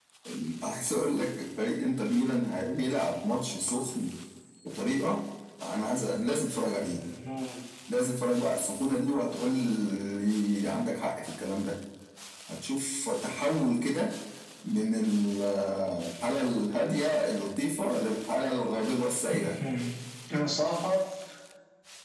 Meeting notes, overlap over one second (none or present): none